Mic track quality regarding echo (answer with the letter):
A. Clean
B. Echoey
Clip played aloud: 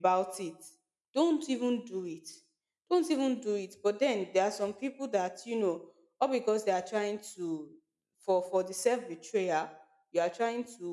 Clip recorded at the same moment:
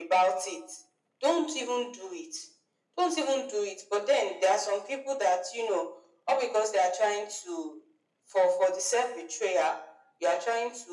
B